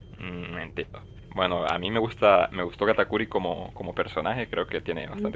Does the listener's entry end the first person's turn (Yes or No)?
No